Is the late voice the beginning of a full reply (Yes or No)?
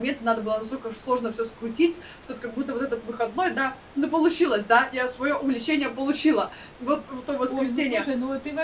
Yes